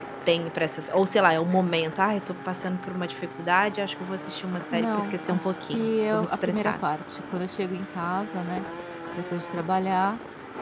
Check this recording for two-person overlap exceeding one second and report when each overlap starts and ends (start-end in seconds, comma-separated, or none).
4.7-6.7